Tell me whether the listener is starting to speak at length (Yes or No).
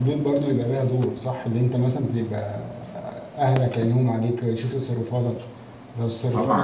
Yes